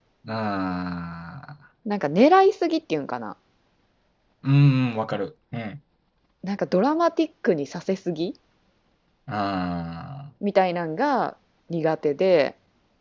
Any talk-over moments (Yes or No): No